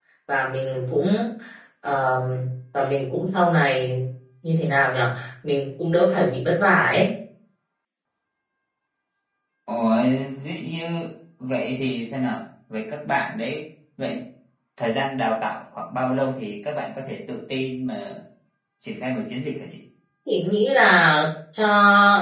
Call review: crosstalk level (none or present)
none